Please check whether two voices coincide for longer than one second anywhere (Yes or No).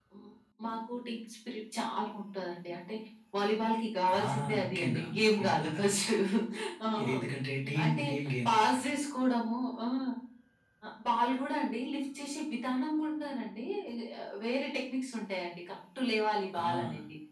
Yes